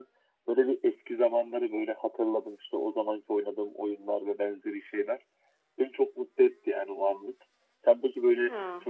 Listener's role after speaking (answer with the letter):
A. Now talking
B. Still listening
B